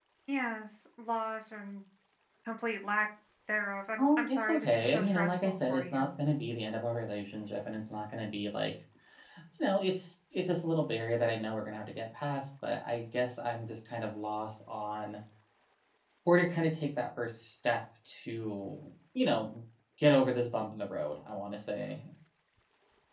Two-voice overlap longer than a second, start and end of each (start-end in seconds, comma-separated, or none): 4.0-6.1